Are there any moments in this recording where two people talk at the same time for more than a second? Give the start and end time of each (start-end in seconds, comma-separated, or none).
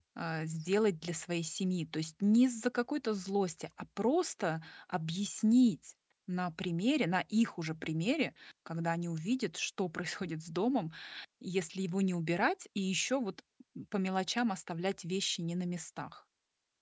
none